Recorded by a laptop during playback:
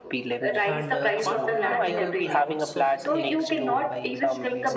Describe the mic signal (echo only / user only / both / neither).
both